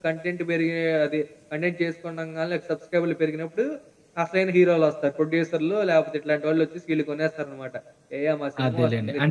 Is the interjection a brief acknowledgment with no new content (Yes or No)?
No